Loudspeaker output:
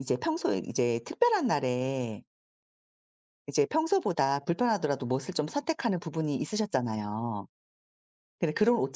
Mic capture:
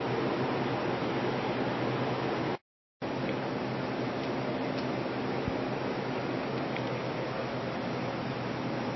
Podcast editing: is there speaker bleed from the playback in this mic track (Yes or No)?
No